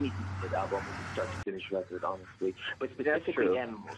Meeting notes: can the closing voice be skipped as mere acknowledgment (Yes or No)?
Yes